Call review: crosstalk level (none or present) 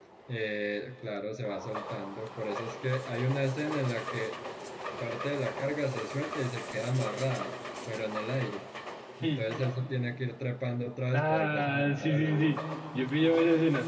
present